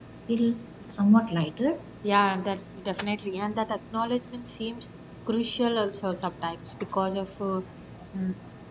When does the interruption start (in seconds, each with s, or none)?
none